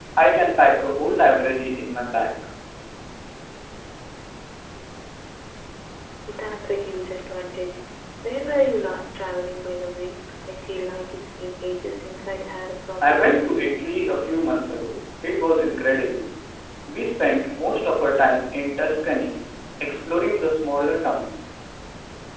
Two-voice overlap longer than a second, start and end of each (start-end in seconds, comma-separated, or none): none